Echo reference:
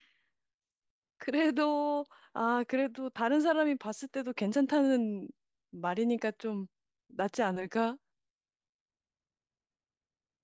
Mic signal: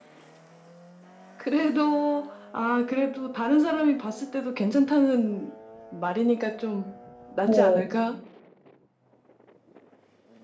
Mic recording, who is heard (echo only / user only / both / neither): both